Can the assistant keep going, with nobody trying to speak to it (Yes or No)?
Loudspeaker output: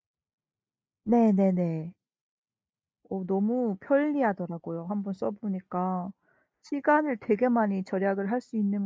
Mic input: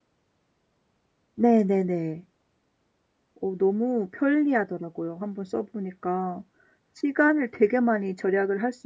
Yes